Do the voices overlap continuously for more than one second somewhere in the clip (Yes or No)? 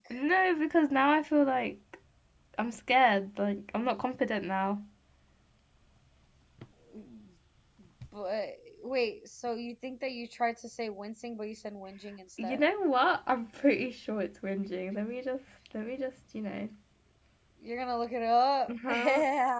No